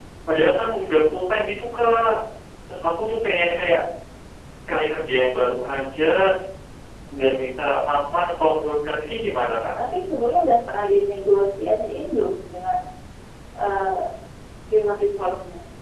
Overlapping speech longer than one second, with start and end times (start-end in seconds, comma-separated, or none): none